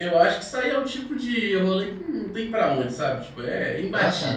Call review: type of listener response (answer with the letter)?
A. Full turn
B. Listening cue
A